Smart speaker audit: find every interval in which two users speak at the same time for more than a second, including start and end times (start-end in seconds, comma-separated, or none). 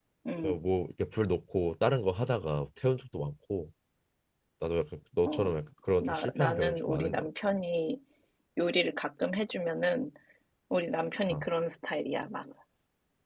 6.0-7.3